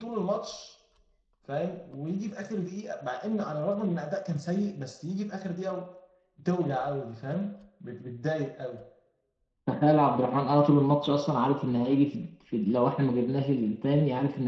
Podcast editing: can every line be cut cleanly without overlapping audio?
Yes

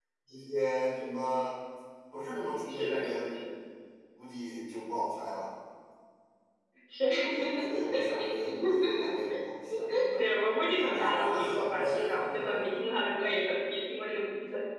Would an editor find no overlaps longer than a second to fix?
No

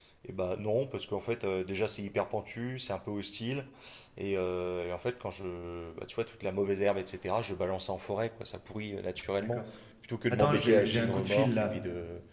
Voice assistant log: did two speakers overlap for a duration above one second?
Yes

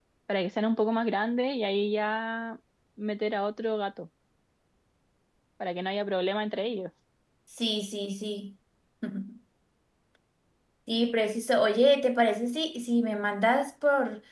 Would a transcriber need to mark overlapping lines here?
No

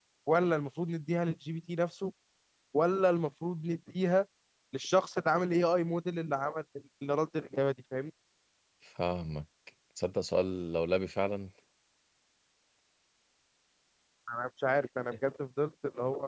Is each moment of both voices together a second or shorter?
Yes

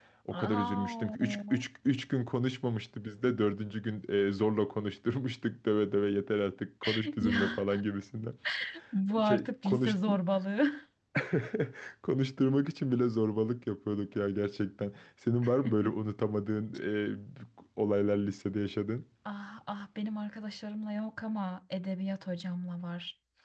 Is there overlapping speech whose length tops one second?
Yes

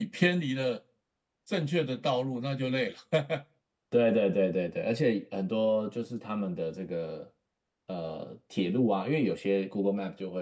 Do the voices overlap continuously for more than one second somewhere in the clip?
No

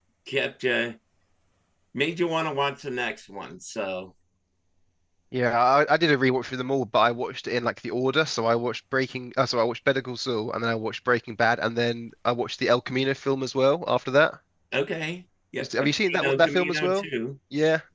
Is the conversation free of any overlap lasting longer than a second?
No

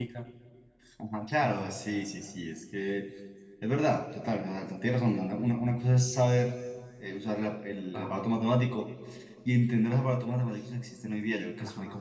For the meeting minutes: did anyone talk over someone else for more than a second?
No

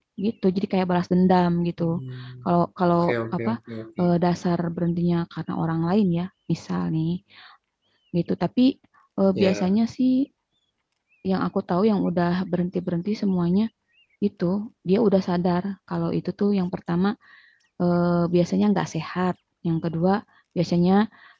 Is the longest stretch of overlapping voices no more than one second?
Yes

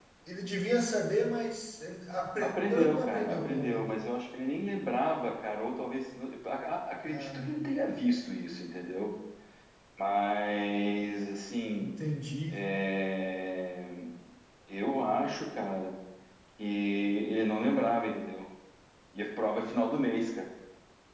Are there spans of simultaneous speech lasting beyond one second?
Yes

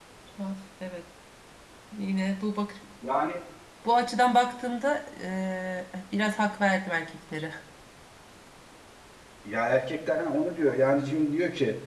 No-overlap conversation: Yes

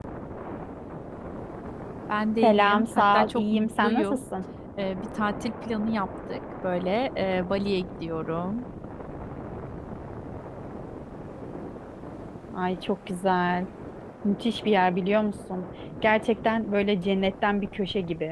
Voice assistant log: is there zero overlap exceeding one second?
No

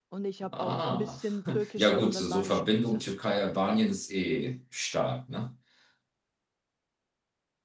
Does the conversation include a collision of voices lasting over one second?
Yes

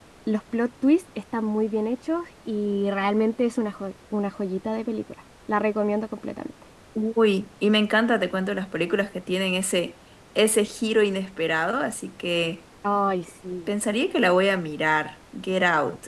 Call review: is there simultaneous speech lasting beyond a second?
No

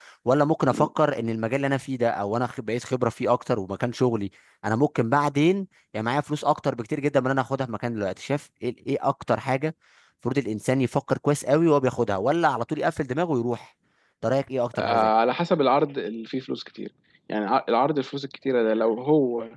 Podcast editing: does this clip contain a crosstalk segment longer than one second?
No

